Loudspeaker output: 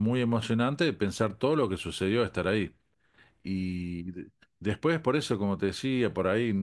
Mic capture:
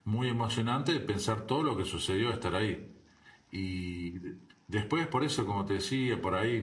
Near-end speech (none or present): none